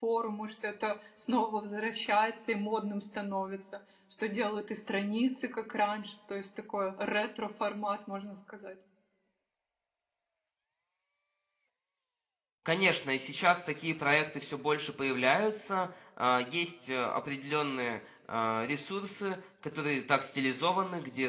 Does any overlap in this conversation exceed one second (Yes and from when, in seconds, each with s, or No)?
No